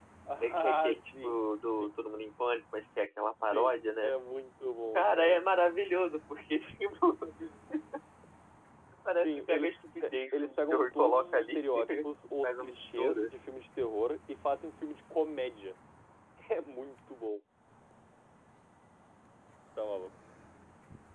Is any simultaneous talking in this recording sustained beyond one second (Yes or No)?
Yes